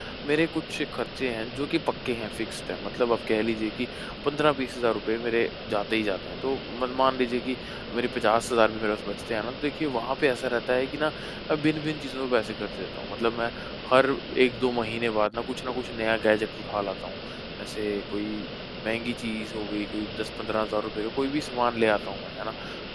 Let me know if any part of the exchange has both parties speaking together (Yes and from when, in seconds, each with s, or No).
No